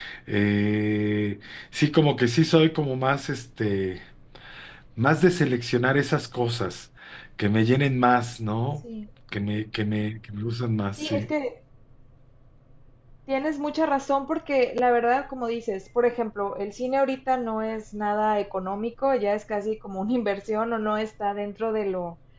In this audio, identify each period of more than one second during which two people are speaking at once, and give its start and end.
none

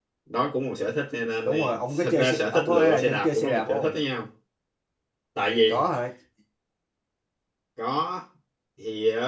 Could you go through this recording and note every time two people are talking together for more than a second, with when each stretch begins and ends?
1.4-3.9

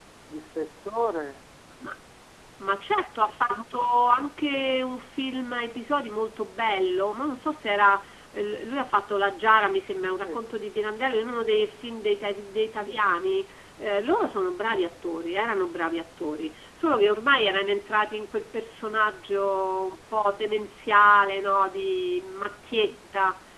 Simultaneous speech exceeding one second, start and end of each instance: none

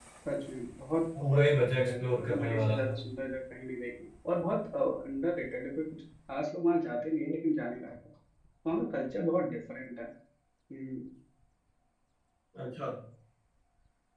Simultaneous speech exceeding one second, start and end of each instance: 1.3-2.8

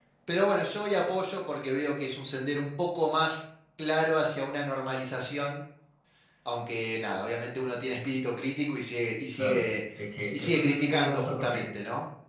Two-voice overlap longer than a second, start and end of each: 10.3-11.7

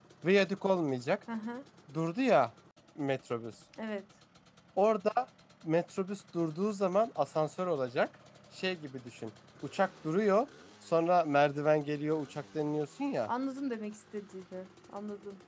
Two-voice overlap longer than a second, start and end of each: none

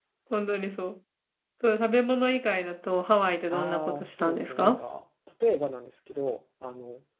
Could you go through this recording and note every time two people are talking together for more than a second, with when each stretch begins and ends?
3.5-4.8

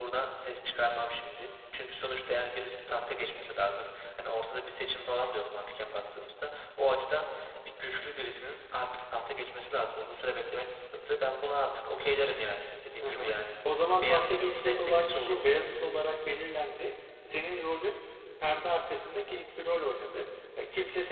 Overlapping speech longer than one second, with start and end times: 14.0-15.4

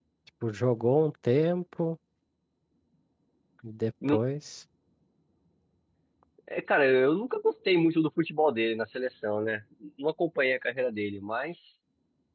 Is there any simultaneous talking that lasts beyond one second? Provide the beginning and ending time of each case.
none

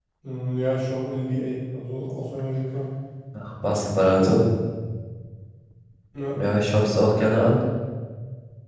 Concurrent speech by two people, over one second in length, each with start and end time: none

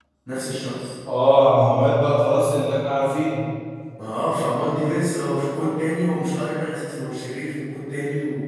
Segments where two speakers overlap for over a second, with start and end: none

